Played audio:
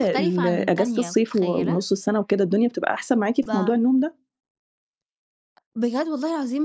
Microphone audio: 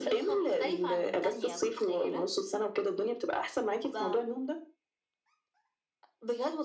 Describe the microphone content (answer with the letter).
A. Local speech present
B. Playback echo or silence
B